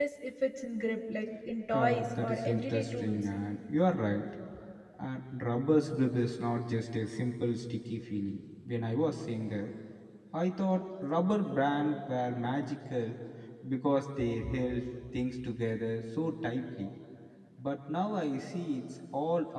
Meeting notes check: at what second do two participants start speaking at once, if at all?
1.7 s

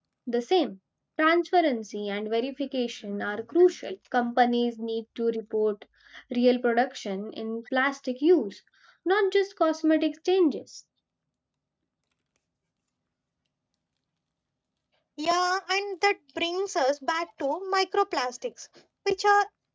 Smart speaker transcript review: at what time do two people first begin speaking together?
none

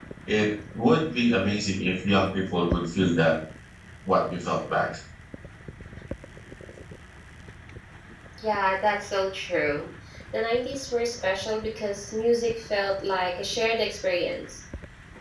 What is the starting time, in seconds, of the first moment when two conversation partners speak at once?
none

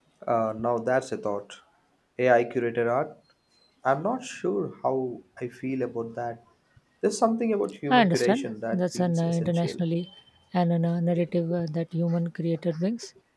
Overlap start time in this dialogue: 7.9 s

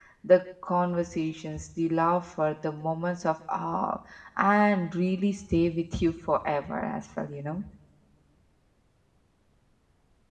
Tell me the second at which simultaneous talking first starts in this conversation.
none

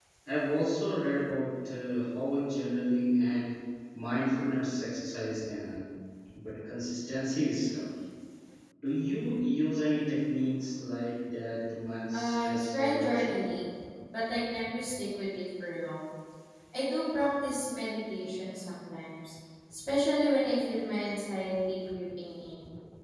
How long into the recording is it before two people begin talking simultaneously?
12.1 s

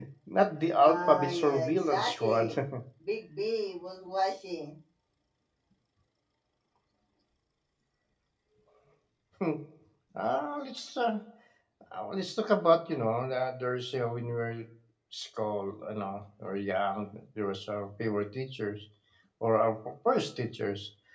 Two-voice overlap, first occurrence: 0.8 s

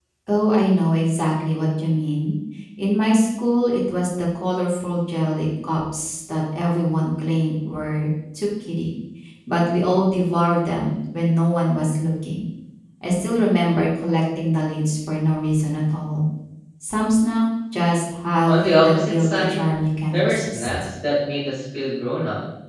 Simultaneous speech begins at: 18.5 s

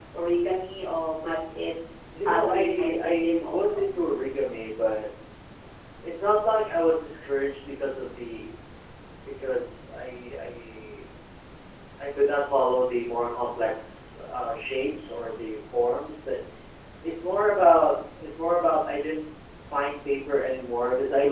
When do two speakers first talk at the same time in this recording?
2.1 s

